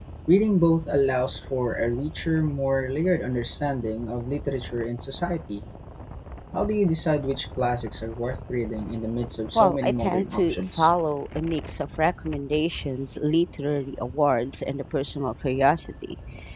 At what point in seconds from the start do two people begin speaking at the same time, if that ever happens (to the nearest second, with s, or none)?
10 s